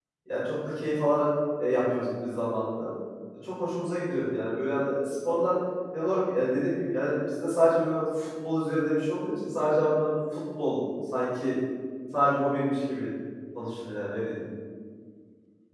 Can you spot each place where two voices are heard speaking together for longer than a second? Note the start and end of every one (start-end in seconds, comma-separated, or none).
none